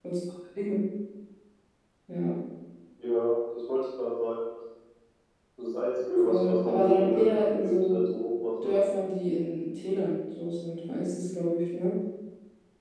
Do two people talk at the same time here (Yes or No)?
Yes